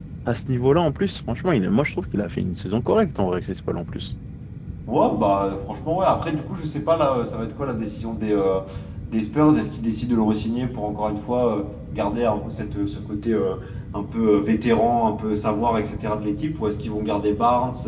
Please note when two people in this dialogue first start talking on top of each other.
none

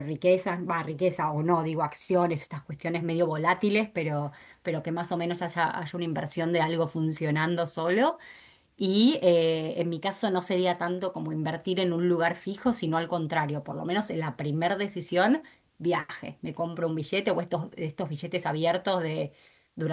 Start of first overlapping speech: none

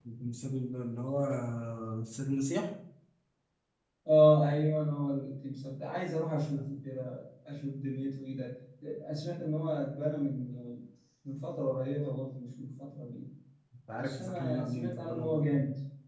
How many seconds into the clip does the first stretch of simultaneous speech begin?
14.0 s

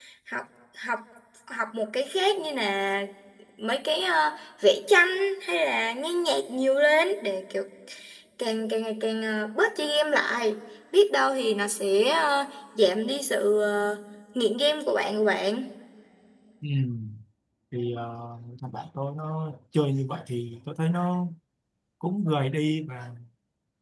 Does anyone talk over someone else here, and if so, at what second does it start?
none

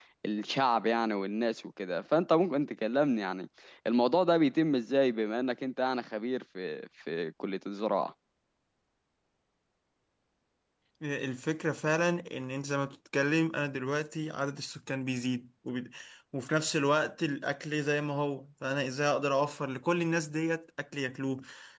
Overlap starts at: none

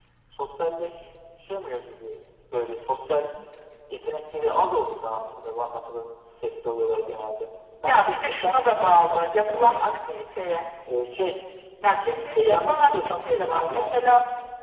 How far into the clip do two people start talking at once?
7.9 s

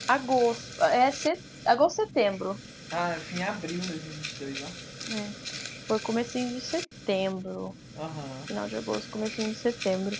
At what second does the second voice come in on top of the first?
none

